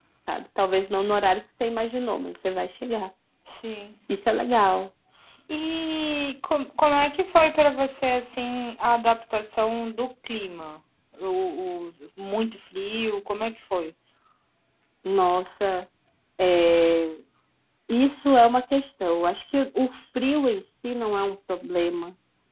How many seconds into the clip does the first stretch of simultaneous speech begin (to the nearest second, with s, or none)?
none